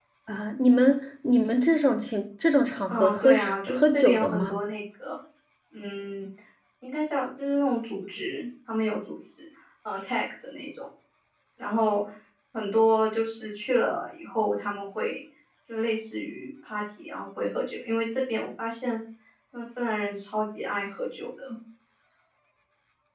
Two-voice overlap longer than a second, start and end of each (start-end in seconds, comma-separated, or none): 2.9-4.6